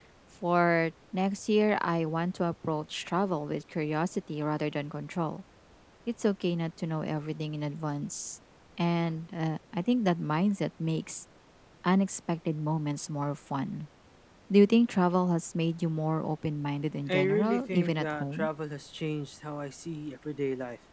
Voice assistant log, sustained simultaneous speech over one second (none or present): present